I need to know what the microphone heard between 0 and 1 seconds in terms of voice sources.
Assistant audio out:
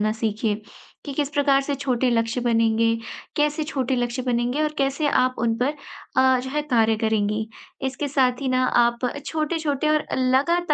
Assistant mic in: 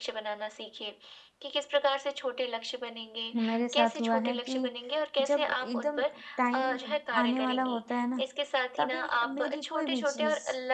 echo only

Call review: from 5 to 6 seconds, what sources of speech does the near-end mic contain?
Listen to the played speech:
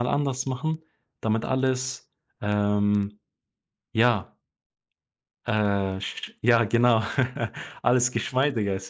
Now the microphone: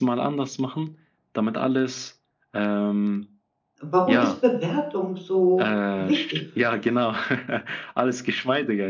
both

